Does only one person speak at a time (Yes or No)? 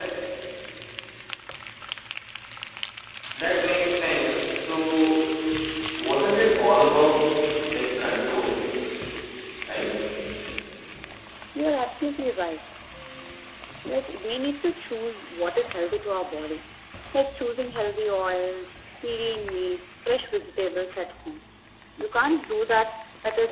Yes